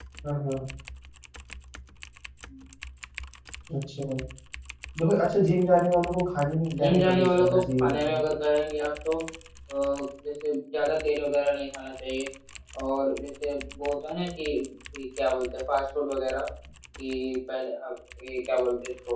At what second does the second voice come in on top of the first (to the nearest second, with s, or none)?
7 s